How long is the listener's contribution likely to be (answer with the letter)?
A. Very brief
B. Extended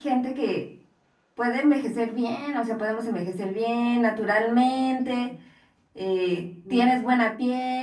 A